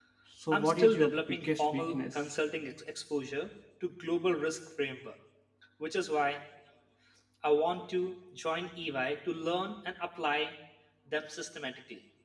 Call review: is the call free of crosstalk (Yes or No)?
No